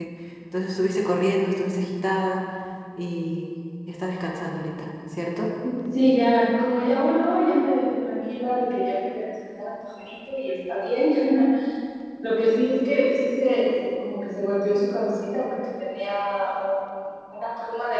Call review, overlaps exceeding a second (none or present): none